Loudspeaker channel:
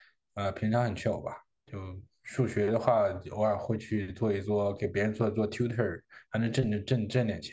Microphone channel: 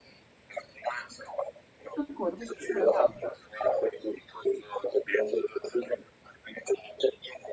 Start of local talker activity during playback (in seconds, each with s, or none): 1.9 s